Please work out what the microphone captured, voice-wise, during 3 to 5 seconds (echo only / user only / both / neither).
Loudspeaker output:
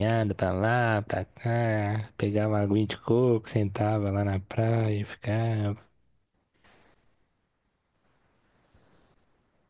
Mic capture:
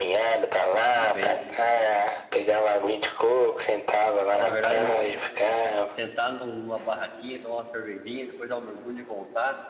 both